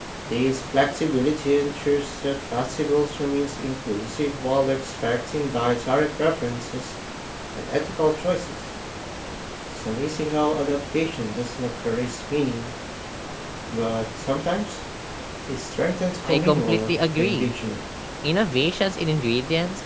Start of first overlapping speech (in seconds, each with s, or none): 16.2 s